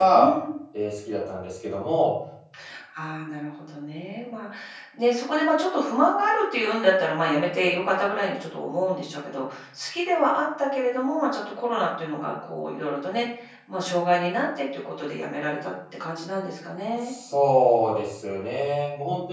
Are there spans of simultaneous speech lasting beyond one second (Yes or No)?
No